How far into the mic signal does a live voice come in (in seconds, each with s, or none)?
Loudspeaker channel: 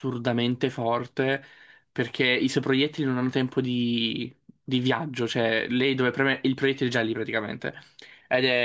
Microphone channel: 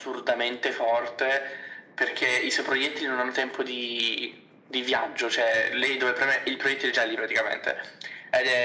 none